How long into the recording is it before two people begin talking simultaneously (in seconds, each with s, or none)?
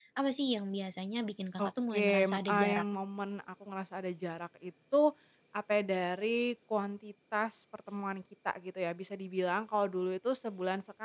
1.6 s